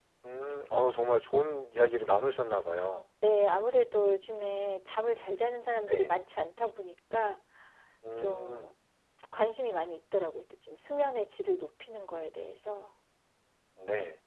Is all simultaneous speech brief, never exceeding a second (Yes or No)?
Yes